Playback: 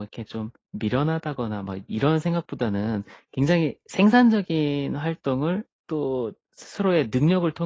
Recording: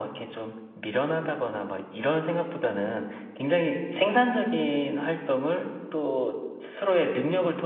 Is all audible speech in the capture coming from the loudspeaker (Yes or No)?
Yes